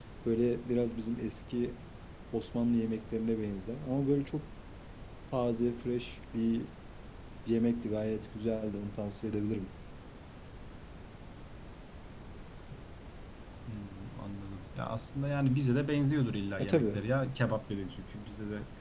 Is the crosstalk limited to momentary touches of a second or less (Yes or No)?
Yes